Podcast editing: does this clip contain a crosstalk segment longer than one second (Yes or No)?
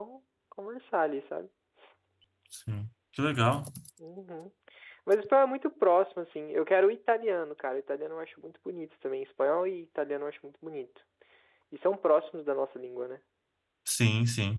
No